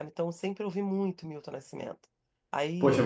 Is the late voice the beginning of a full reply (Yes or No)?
Yes